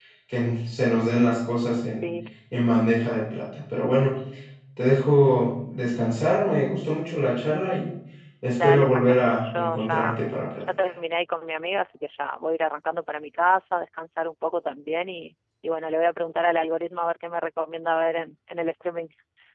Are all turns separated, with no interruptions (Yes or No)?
No